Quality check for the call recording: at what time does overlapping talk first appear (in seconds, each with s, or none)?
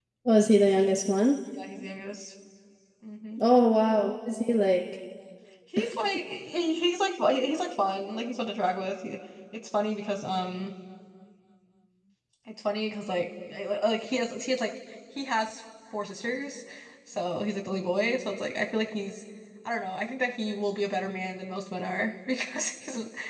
none